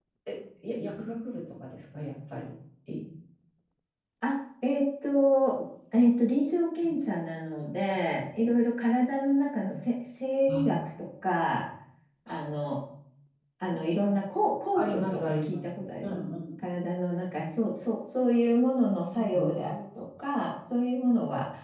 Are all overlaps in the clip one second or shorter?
No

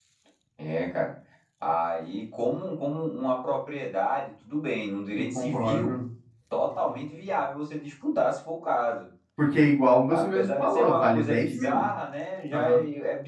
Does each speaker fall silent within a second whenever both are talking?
No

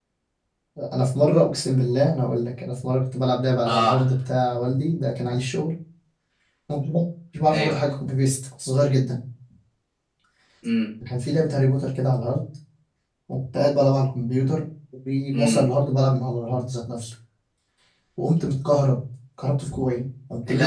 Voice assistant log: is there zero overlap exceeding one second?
Yes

